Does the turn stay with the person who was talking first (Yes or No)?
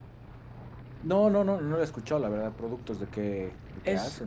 No